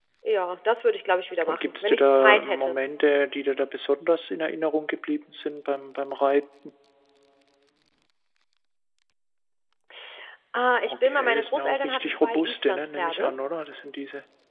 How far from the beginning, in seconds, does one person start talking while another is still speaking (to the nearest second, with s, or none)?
1 s